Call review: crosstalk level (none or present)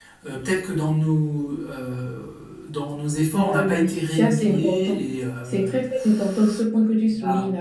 present